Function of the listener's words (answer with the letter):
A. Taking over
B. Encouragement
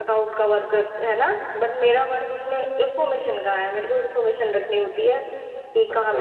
A